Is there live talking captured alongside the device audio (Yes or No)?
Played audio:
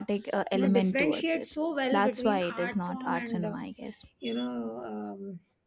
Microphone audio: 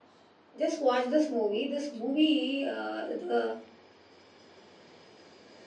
Yes